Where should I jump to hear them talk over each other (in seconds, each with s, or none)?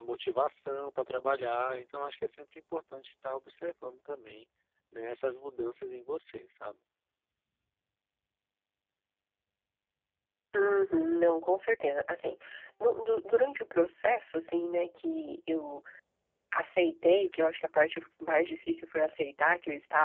none